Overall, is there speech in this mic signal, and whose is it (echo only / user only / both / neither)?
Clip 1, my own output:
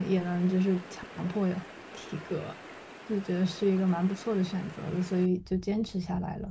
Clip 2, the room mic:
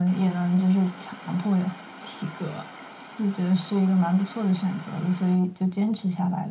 echo only